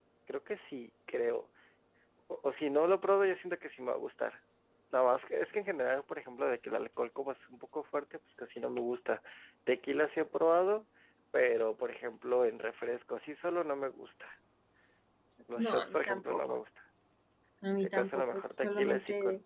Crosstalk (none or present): present